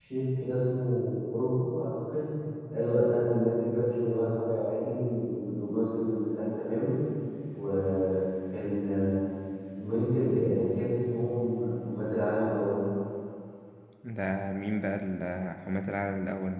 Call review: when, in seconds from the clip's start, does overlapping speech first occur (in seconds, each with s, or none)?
none